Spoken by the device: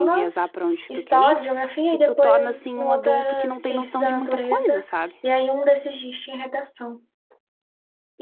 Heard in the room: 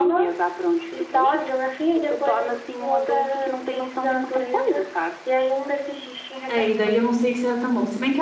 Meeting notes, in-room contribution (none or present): present